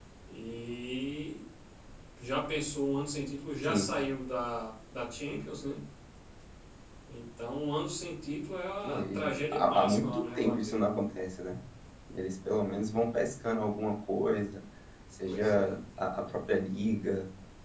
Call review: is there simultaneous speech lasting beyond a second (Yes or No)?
Yes